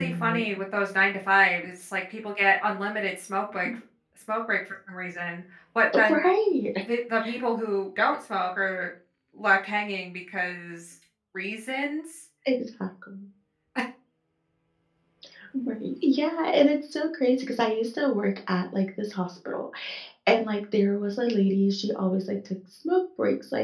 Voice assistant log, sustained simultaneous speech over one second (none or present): none